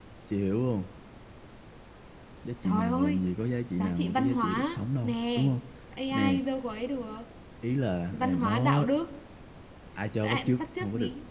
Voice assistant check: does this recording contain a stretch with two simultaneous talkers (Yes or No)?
Yes